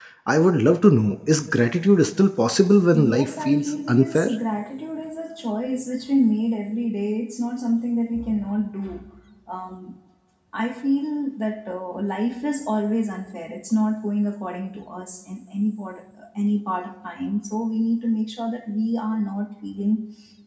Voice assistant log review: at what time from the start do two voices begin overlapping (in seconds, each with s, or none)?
2.9 s